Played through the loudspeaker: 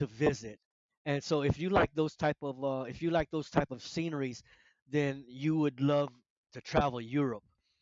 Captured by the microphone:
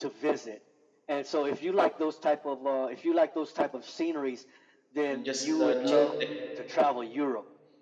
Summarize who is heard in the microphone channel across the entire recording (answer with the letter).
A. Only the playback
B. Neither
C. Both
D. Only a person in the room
C